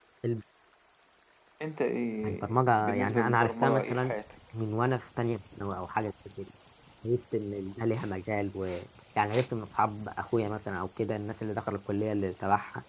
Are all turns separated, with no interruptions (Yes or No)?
No